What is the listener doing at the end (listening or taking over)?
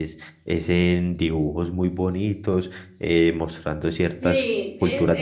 taking over